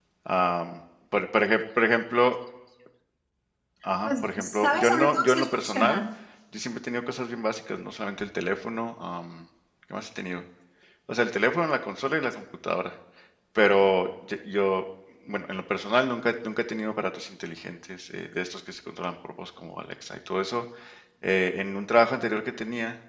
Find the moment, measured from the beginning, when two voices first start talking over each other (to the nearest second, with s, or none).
4 s